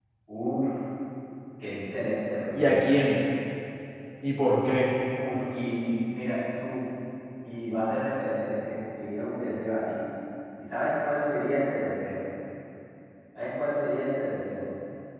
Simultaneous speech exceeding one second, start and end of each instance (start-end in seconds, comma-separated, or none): none